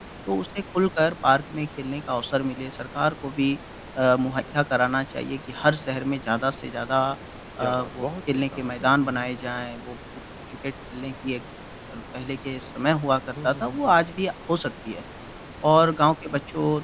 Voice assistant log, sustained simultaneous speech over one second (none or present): present